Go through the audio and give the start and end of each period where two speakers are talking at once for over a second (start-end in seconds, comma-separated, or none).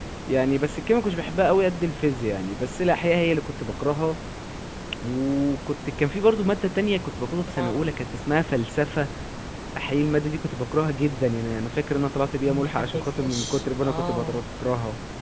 12.4-14.4